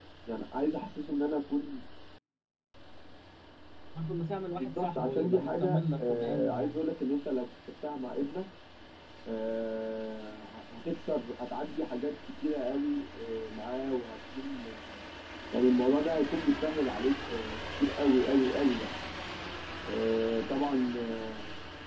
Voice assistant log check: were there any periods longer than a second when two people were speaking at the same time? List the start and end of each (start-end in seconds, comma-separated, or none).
4.6-6.8